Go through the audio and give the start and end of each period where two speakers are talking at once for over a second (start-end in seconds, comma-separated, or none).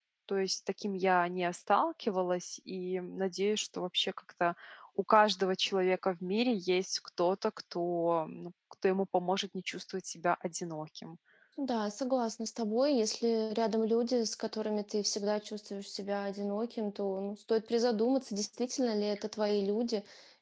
none